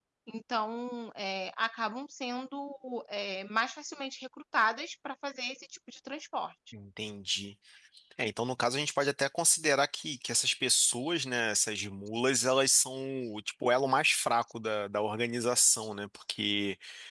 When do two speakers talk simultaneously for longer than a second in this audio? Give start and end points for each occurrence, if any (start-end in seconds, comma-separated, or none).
none